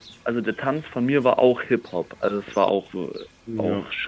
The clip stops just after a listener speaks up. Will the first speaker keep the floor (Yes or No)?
No